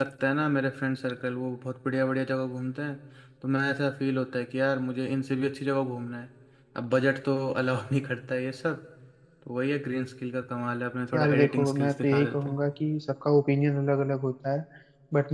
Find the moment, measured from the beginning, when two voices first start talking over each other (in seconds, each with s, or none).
11.1 s